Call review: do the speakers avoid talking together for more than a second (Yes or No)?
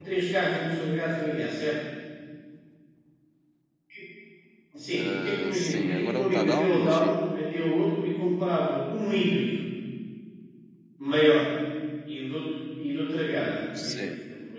No